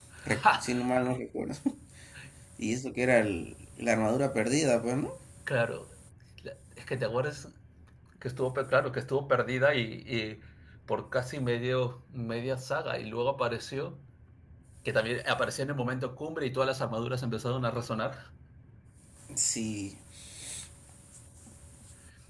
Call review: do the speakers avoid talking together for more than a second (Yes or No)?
Yes